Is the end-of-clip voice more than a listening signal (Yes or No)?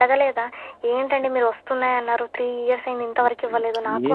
Yes